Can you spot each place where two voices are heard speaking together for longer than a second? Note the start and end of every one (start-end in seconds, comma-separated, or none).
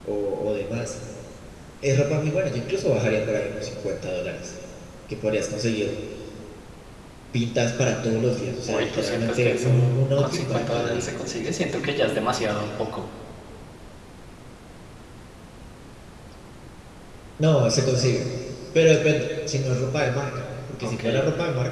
8.7-11.1